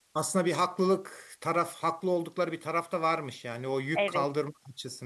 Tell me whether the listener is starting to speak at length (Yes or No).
No